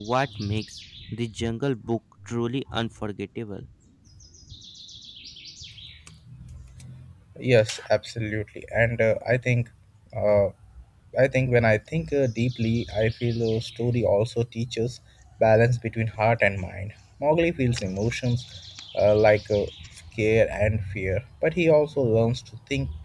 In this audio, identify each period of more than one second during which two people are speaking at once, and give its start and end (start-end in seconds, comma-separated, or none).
none